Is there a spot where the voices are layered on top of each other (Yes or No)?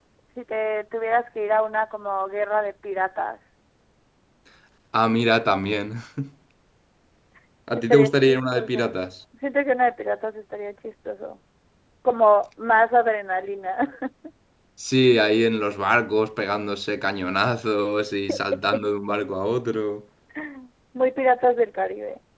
Yes